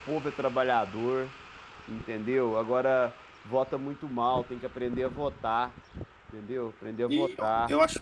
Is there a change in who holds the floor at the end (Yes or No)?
Yes